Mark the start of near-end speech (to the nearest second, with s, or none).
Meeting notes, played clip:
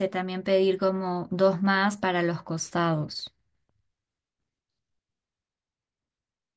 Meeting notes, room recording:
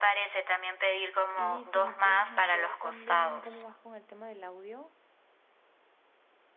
1 s